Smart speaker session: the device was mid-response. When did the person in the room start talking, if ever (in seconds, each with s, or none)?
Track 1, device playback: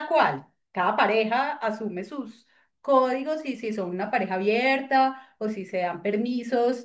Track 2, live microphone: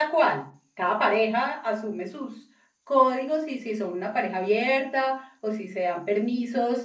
none